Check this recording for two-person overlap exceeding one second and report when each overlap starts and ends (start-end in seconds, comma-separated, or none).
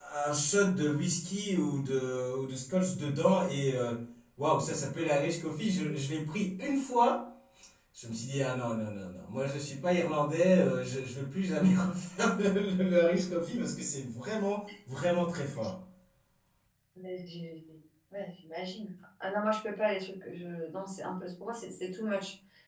none